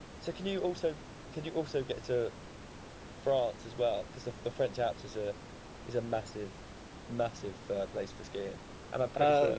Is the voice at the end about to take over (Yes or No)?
No